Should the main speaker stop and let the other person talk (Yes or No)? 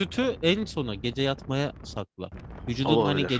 No